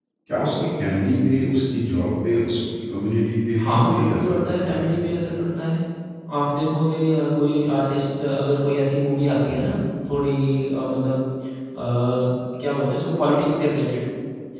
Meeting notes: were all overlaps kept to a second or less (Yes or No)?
No